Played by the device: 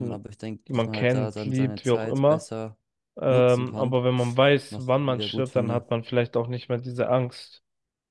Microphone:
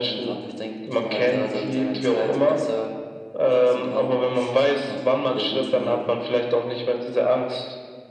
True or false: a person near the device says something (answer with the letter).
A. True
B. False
B